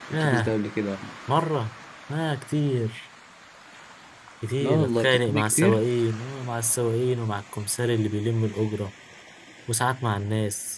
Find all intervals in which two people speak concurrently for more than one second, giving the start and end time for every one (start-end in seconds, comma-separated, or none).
4.6-5.8